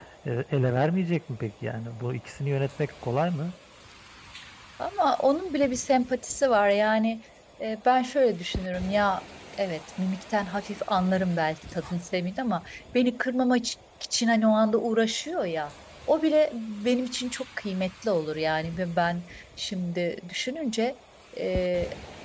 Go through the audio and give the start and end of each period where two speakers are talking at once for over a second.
none

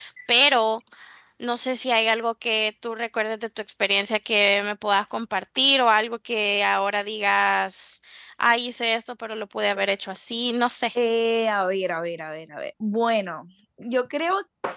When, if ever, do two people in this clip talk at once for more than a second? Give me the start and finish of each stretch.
none

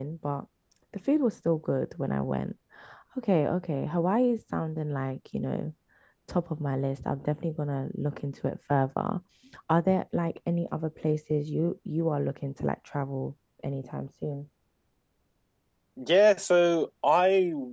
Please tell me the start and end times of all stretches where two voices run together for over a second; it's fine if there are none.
none

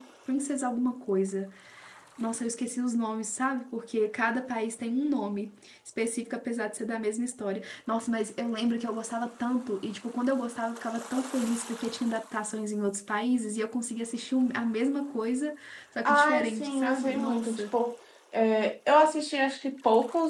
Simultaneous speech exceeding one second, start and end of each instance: 16.1-17.6

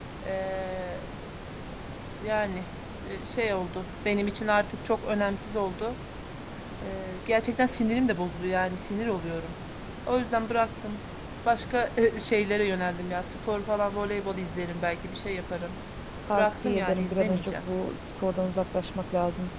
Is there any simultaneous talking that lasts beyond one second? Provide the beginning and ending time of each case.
16.3-17.6

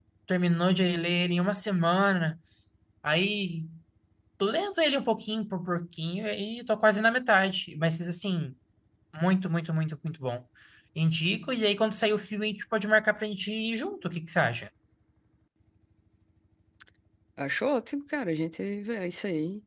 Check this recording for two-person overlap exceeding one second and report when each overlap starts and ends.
none

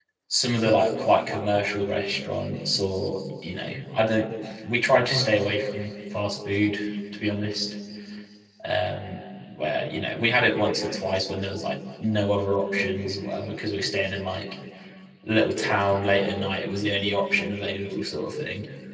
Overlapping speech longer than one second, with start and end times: none

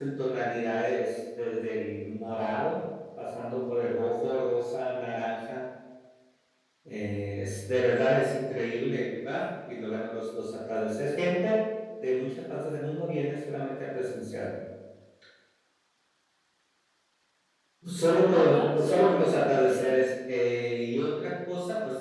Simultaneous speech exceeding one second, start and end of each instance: 18.2-19.9

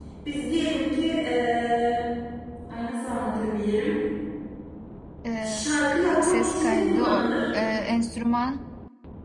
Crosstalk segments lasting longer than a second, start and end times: 5.4-7.3

